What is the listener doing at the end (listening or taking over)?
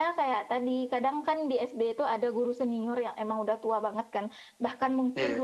listening